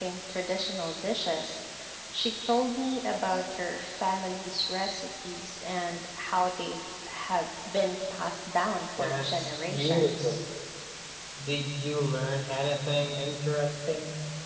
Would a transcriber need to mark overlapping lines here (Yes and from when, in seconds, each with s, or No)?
Yes, from 9.0 s